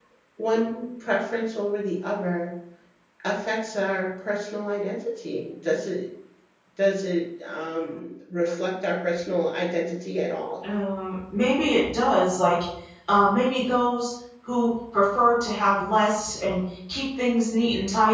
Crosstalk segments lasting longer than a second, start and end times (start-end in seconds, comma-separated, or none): none